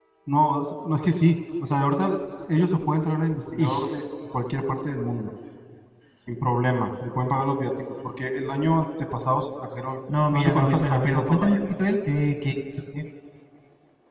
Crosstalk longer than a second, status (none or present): present